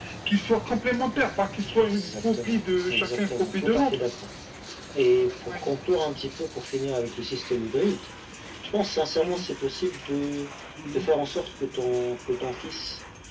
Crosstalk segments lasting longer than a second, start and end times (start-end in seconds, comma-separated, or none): 1.6-4.0